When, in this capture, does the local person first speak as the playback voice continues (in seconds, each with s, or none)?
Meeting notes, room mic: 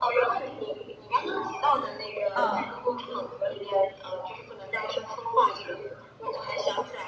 2.4 s